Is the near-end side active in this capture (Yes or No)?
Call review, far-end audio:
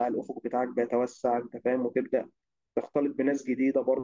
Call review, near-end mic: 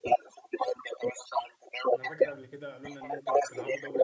Yes